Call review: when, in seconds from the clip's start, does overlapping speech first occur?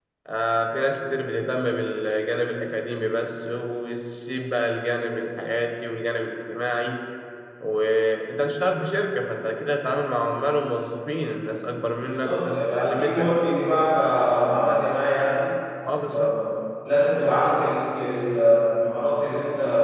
12.0 s

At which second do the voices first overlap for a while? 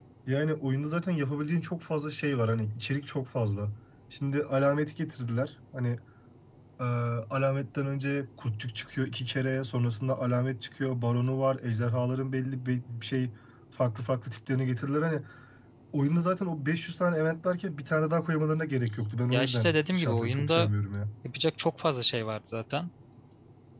19.3 s

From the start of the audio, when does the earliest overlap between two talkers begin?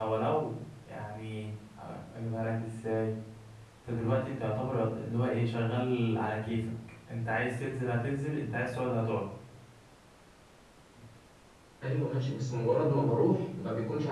none

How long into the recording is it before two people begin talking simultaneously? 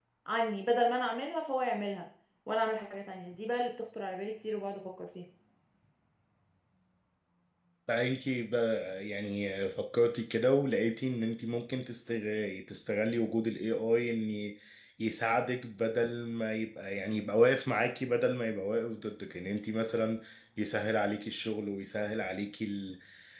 none

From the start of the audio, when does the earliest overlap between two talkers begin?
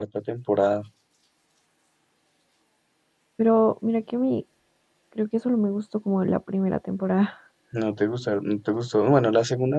none

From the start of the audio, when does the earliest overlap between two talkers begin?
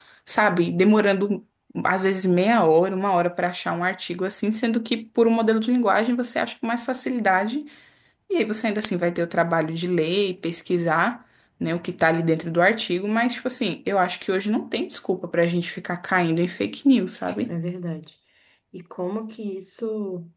none

